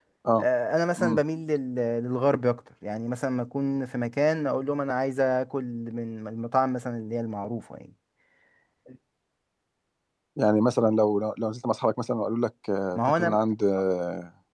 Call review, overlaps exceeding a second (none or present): none